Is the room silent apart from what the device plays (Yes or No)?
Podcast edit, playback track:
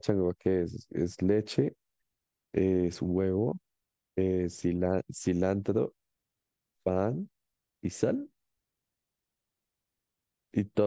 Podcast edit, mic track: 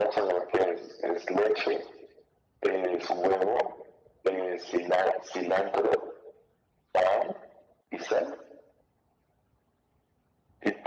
Yes